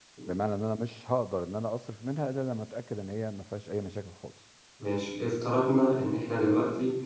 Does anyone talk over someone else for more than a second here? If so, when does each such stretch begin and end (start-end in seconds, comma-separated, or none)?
none